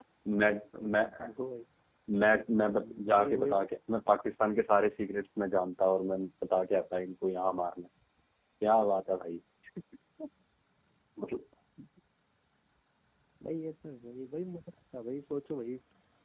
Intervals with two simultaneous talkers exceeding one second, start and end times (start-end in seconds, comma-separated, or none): 2.4-3.6